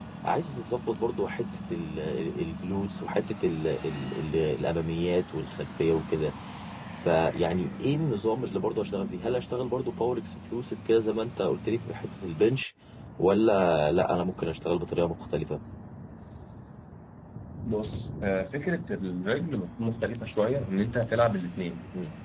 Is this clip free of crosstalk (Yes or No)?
Yes